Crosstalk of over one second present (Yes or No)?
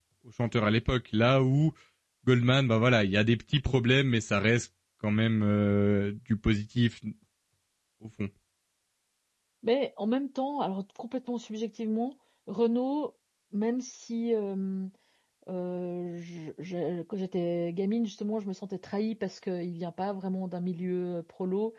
No